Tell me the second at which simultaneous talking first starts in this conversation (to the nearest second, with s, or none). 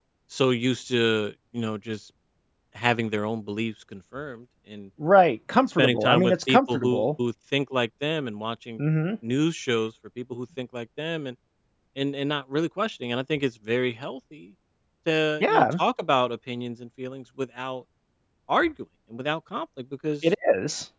6 s